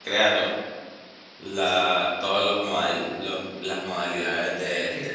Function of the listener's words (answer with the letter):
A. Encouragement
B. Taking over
B